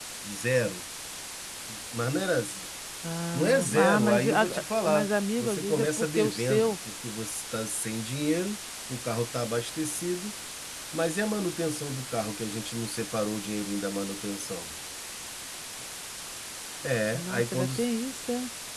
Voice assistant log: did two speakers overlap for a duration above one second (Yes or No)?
Yes